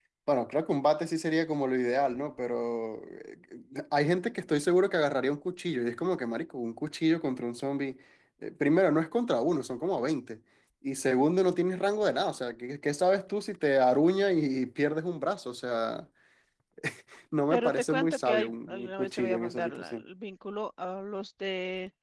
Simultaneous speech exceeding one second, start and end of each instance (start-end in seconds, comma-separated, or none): 17.5-20.0